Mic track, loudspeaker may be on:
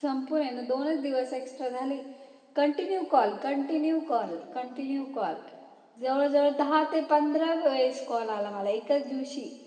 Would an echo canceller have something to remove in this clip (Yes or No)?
No